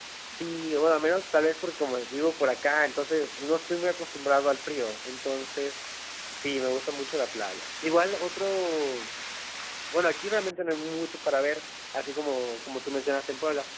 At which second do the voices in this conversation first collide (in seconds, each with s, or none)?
none